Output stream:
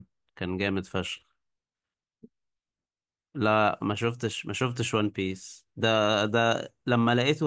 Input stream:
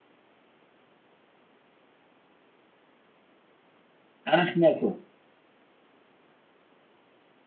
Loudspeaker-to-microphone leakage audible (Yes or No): No